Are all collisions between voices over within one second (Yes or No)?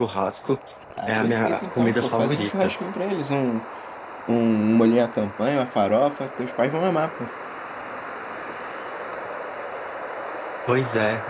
No